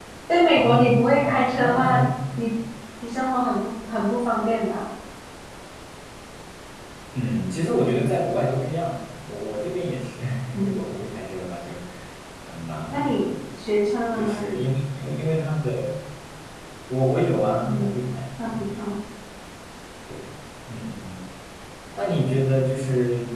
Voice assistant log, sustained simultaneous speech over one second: present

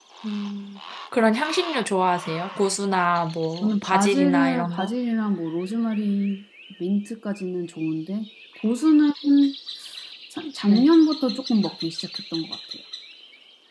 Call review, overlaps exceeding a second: present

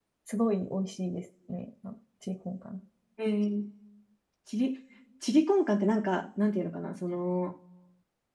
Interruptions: none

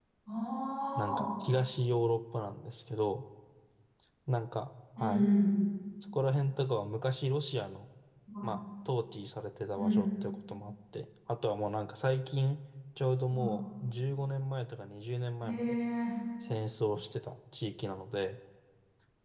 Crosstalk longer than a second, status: none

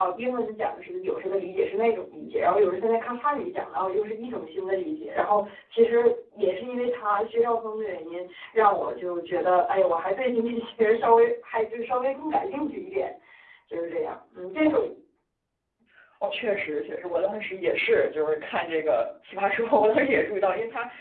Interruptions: none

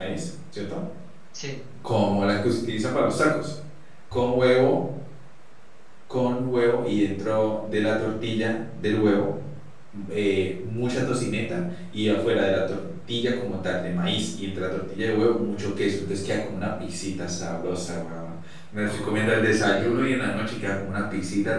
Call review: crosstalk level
present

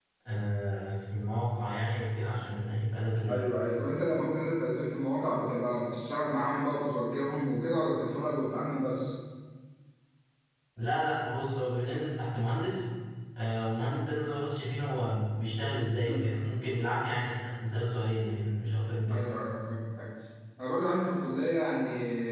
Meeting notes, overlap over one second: none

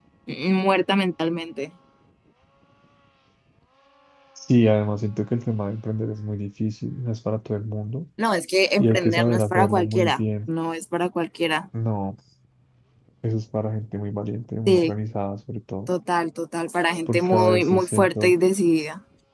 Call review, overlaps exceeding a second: present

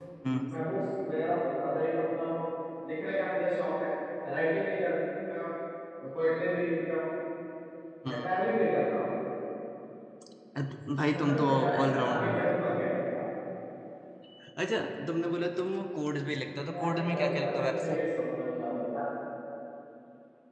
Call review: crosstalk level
present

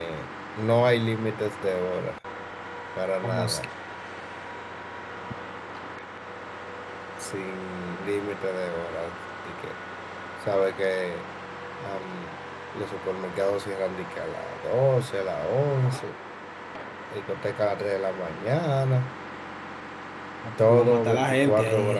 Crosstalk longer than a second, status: present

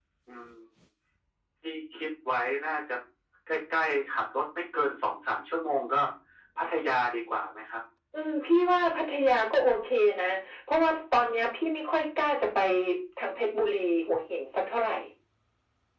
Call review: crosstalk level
none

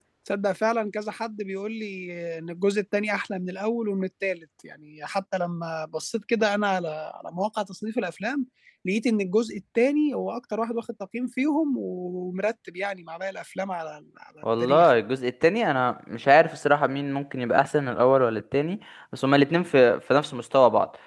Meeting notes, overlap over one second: none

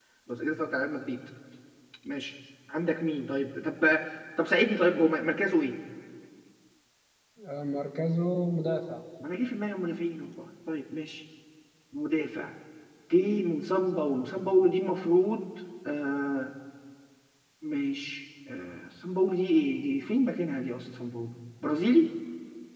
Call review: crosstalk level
none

